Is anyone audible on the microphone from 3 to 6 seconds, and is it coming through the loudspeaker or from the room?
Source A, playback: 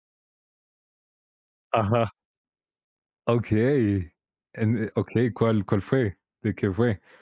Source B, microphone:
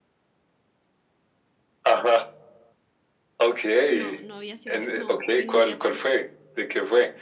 both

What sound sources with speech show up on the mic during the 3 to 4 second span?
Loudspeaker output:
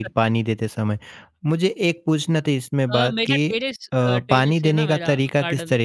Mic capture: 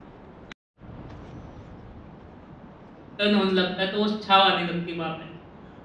user only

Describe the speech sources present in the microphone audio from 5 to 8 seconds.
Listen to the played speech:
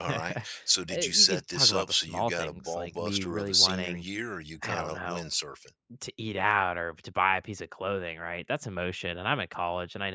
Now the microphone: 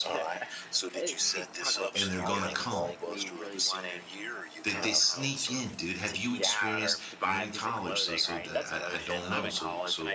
both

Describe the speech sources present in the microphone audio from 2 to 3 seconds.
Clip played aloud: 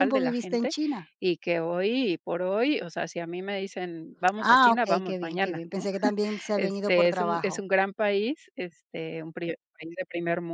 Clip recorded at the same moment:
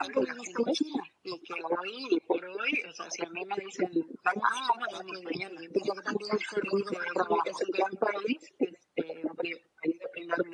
echo only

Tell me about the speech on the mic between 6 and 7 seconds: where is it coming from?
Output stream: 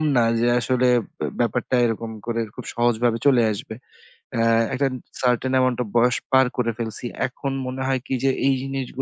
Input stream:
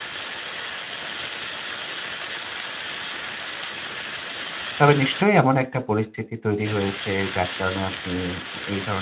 user only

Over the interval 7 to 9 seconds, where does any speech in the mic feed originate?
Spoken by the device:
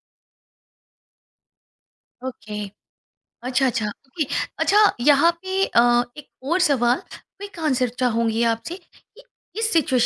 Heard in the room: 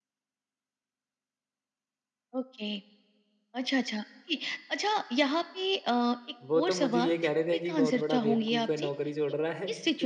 both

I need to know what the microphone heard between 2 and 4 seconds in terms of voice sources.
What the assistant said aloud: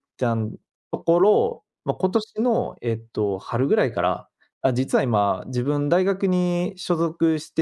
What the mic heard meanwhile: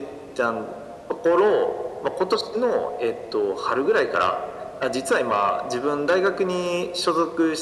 echo only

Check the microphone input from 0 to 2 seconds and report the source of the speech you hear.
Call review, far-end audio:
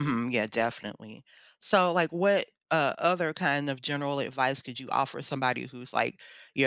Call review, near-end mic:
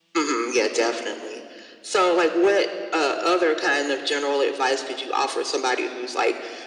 echo only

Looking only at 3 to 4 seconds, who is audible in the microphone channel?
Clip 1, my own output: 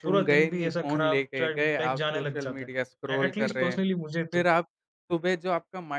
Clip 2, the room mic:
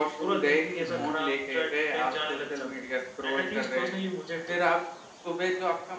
echo only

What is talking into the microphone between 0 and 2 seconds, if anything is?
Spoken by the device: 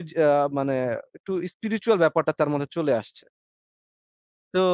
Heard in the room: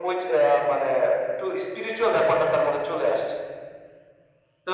echo only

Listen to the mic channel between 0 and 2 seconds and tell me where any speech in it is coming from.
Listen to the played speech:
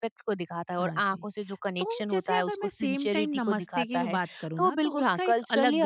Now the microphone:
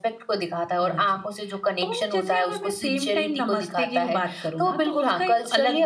echo only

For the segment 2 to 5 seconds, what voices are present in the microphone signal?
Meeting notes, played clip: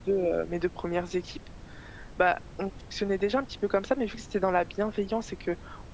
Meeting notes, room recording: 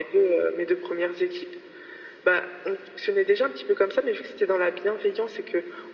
echo only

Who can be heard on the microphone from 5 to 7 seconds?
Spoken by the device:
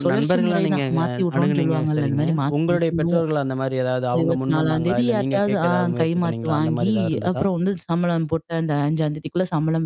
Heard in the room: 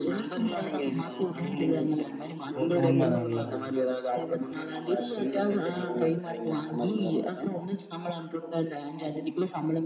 echo only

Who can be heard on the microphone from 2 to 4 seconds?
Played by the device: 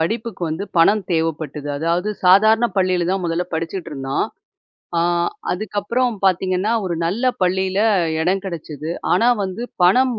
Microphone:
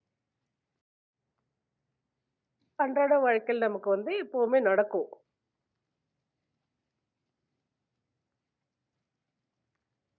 user only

